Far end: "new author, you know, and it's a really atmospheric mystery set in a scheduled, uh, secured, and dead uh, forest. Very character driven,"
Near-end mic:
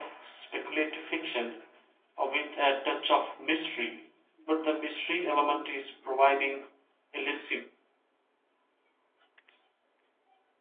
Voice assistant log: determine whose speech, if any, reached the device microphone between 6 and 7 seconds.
user only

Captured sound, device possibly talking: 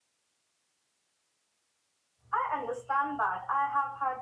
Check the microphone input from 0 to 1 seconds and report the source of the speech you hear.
neither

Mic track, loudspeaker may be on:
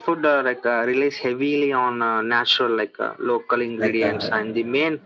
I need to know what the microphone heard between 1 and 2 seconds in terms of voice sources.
echo only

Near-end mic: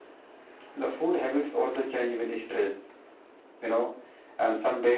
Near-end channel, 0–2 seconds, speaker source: echo only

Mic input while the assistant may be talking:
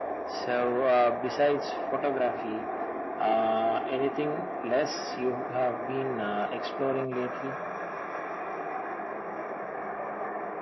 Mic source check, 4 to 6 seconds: echo only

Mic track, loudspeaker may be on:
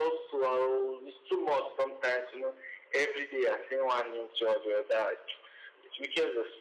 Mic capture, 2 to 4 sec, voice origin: echo only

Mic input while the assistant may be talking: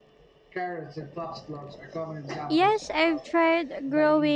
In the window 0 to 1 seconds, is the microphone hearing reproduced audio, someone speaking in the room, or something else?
echo only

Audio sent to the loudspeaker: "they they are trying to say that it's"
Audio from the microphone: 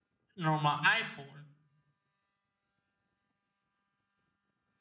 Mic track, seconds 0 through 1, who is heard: user only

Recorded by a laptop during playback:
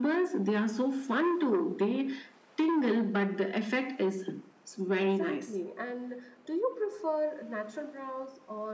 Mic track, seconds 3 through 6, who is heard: both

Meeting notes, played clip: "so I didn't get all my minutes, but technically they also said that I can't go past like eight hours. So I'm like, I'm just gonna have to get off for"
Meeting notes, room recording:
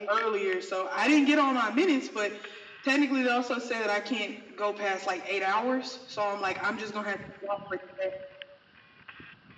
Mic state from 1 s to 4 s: echo only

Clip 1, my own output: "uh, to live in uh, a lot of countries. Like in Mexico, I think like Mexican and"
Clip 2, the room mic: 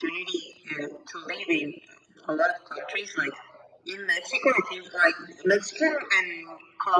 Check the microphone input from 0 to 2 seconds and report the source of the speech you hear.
echo only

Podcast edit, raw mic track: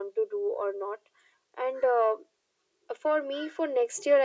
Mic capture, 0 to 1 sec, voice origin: echo only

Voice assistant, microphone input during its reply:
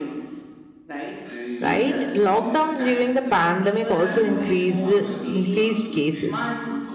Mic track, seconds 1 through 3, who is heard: both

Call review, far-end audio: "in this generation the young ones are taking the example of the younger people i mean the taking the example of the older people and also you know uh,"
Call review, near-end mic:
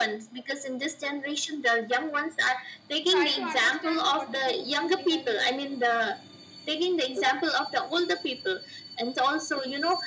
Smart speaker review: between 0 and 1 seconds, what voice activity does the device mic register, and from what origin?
echo only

